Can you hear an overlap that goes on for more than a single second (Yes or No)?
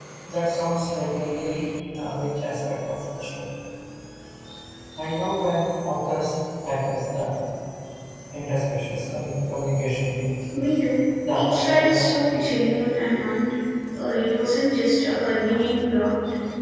Yes